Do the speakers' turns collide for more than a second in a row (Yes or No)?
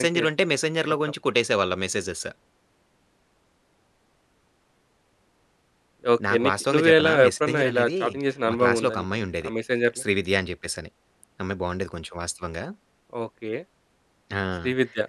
Yes